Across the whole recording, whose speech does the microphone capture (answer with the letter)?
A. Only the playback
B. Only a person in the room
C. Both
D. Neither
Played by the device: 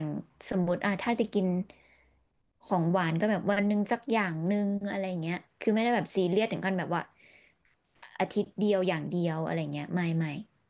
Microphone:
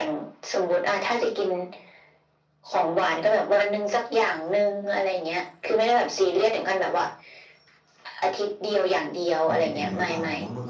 C